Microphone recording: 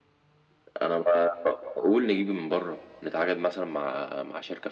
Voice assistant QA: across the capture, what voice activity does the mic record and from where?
echo only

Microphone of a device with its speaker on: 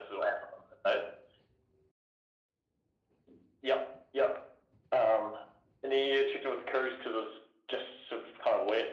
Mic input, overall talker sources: echo only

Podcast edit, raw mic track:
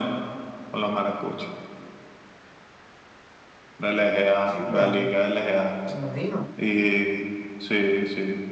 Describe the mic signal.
both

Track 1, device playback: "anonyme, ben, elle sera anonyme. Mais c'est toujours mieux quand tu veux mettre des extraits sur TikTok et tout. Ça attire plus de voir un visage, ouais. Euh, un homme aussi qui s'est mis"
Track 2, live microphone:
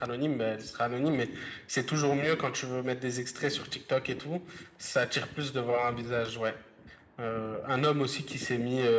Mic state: echo only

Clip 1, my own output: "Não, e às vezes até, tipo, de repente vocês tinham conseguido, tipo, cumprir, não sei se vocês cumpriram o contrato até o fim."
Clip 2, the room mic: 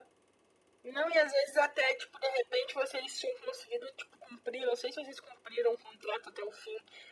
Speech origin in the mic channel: echo only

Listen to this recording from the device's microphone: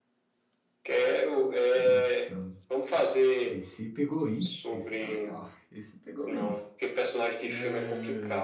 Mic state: both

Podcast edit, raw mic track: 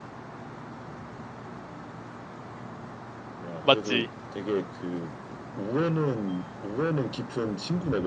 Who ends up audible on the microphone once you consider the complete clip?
both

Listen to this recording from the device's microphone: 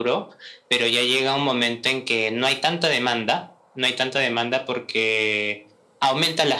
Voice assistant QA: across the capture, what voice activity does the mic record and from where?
echo only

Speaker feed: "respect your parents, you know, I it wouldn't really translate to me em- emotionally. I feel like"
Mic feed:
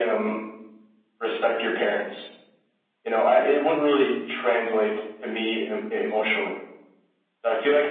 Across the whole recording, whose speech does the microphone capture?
echo only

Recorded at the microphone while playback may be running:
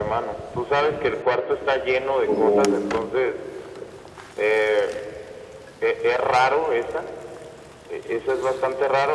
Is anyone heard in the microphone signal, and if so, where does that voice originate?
both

